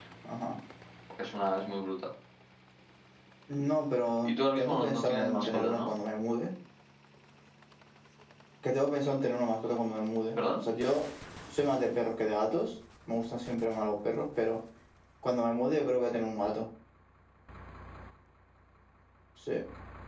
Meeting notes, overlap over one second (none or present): present